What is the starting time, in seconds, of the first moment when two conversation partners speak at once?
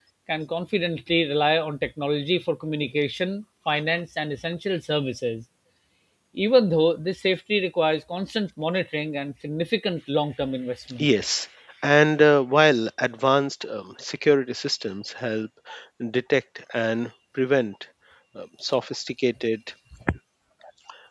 none

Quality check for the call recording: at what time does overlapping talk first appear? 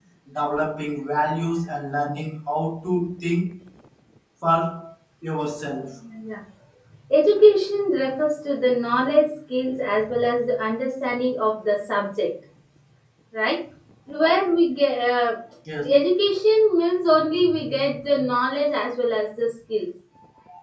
none

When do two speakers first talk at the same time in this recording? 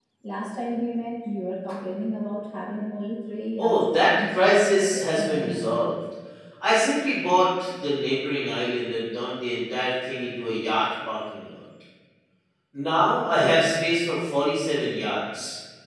4 s

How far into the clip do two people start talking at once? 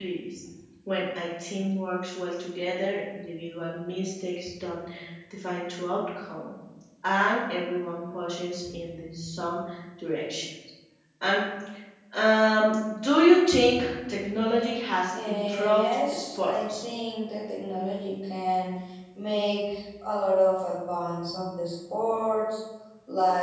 15 s

